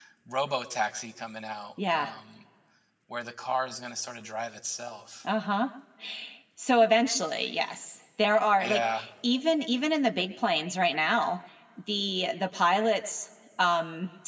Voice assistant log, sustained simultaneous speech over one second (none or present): none